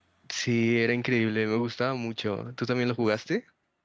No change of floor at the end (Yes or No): No